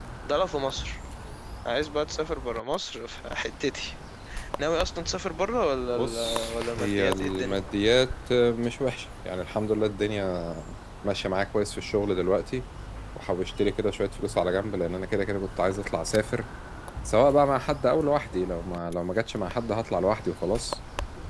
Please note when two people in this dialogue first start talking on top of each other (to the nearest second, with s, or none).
6 s